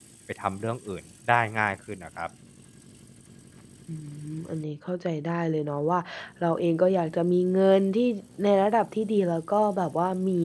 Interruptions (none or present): none